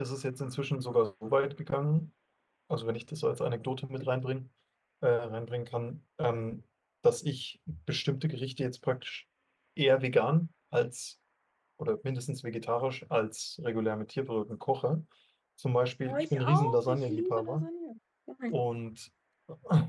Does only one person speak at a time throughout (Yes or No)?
No